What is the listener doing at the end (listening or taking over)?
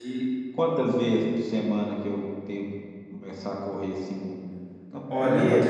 taking over